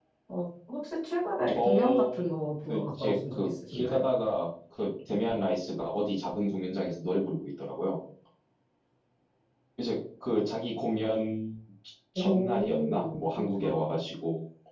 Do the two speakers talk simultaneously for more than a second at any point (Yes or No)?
Yes